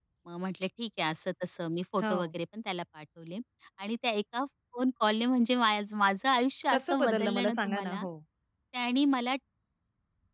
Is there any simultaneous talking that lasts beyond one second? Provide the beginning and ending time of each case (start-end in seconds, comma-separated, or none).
6.7-8.0